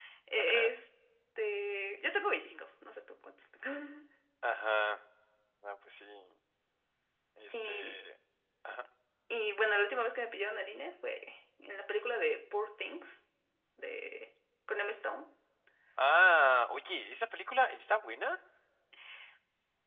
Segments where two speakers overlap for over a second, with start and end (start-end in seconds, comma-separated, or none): none